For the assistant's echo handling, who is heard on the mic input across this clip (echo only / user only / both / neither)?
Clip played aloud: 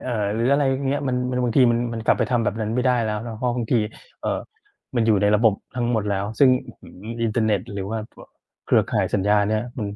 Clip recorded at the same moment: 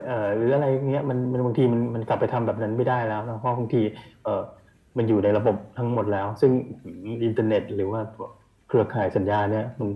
echo only